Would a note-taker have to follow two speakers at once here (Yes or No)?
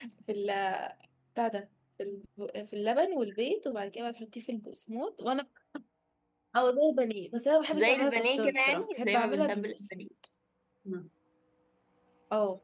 Yes